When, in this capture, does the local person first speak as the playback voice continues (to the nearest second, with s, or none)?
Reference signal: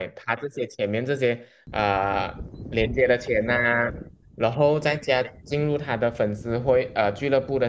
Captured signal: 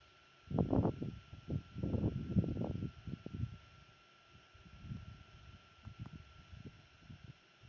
none